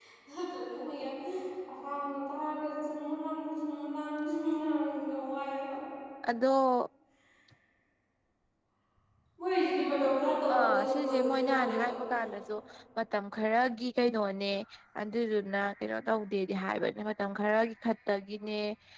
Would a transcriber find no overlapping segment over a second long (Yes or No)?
No